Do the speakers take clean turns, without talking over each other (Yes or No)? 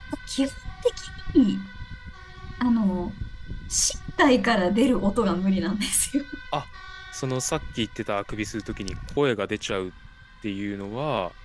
Yes